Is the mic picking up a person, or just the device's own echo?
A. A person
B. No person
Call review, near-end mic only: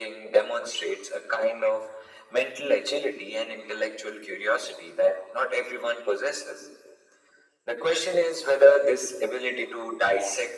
B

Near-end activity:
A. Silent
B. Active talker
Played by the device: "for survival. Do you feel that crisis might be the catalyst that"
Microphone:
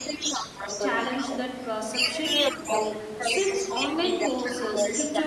B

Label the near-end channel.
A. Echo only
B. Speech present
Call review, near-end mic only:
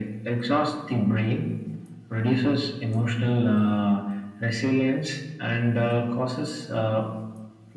A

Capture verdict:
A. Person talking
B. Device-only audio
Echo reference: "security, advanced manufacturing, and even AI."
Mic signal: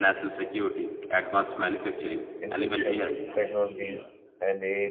A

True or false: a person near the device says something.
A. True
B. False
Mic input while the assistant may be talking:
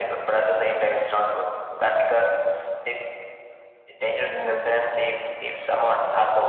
A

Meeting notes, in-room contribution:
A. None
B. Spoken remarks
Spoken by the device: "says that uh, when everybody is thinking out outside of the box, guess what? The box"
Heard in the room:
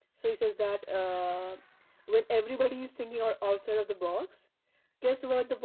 A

